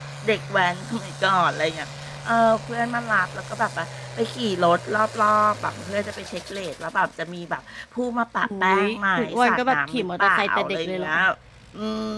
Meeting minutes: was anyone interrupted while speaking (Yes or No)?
Yes